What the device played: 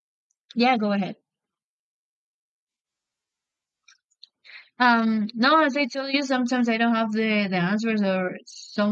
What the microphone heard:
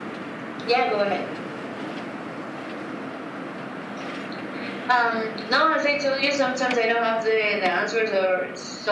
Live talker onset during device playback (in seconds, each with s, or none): none